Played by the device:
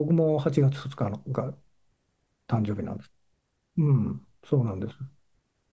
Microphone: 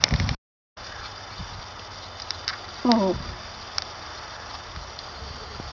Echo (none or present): none